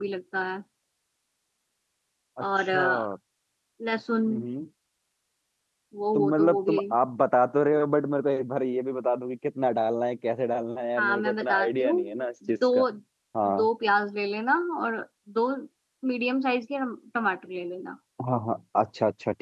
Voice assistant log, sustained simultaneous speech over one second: present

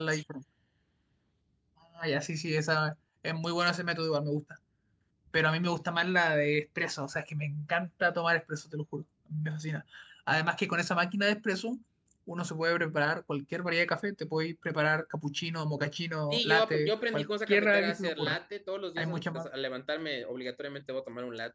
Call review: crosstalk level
present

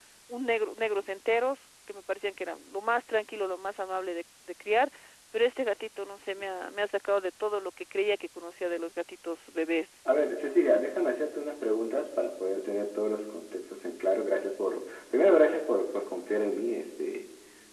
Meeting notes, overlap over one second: none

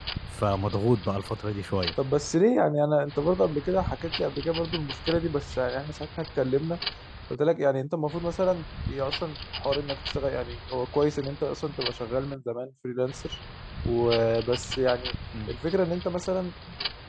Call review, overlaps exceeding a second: none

